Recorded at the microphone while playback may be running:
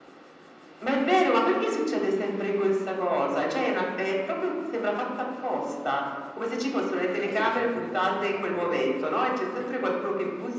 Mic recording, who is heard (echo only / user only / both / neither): both